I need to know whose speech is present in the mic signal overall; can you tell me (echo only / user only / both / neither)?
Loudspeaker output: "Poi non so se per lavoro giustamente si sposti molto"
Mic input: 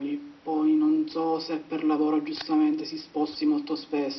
echo only